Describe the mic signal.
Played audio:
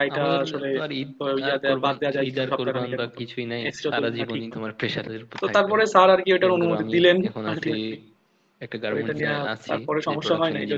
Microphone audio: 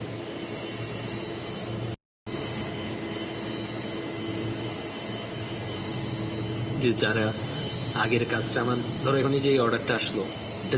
user only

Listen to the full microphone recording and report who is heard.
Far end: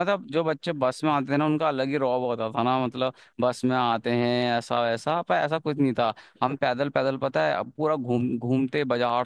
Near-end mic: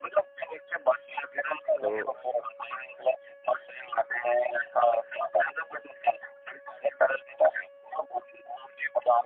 both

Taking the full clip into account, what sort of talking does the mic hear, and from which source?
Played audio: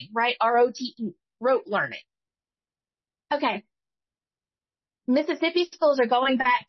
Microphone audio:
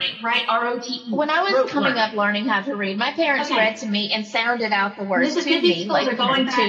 both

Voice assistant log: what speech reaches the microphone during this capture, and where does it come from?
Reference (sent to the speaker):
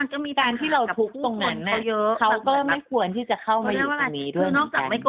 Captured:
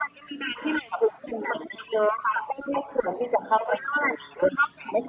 echo only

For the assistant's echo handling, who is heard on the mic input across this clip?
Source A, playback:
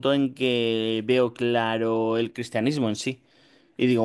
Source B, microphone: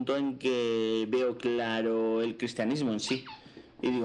echo only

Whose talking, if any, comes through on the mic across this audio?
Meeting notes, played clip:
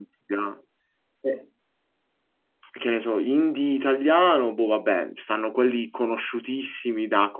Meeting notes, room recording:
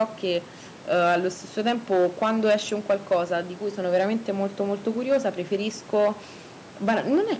user only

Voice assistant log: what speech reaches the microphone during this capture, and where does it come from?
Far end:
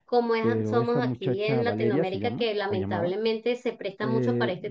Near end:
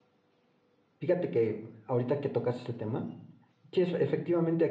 user only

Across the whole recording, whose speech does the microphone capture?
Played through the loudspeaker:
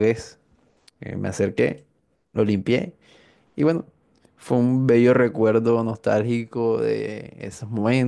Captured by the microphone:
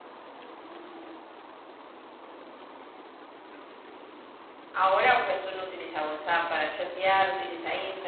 user only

